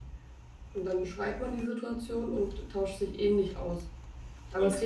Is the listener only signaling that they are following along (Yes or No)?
Yes